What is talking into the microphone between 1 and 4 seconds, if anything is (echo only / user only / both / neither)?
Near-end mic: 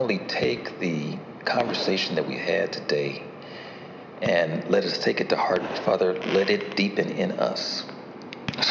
echo only